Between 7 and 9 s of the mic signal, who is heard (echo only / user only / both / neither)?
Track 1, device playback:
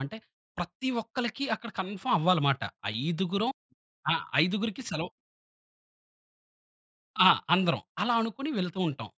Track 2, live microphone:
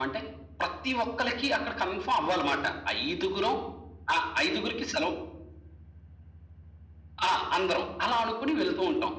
echo only